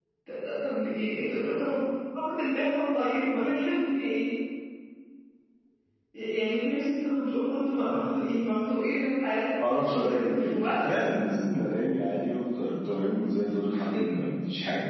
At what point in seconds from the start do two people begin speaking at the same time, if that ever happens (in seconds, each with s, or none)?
9.6 s